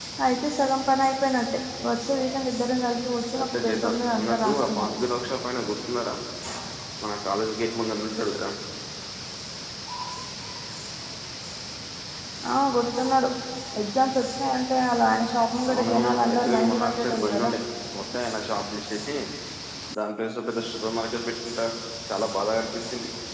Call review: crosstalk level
present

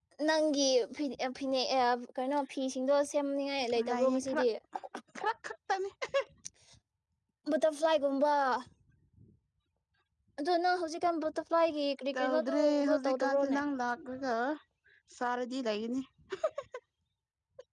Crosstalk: present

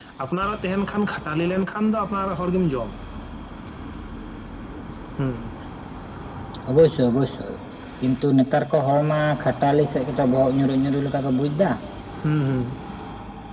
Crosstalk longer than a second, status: none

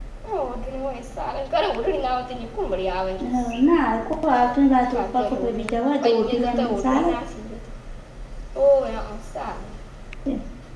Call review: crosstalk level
present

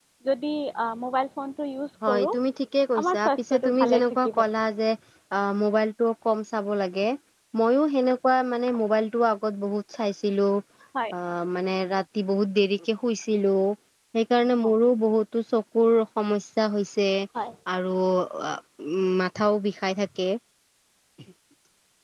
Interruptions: present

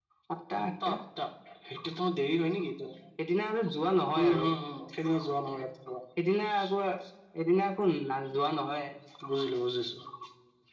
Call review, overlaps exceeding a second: none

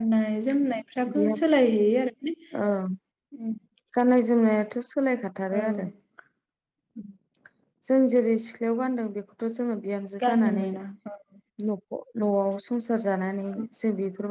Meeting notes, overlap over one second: none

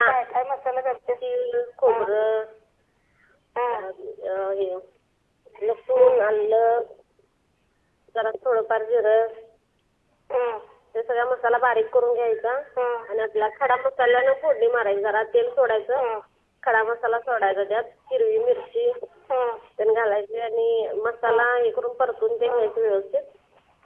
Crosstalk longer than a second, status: none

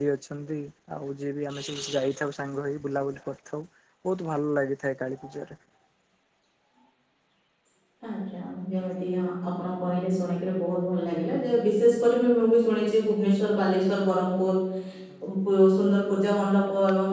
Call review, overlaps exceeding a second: none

